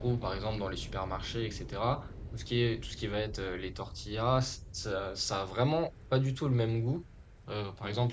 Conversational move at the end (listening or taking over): listening